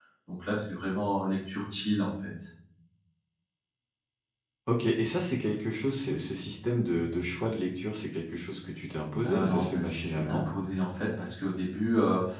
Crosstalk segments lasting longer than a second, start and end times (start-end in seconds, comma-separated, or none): 9.2-10.4